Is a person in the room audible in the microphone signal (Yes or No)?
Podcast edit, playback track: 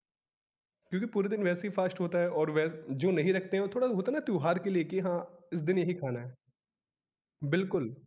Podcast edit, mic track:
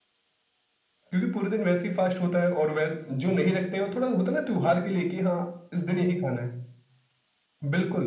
No